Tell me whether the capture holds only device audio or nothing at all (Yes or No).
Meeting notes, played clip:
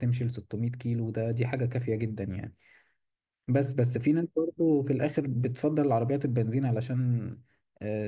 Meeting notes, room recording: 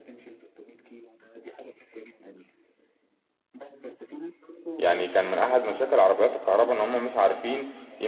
No